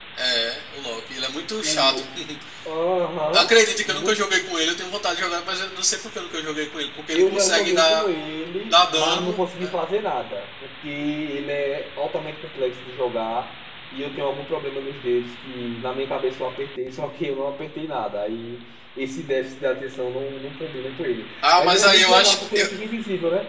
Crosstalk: present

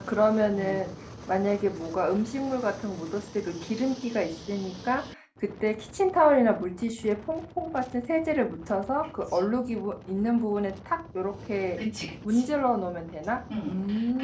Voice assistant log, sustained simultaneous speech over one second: none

